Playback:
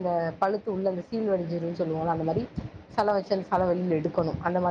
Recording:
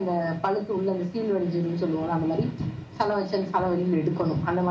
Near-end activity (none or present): none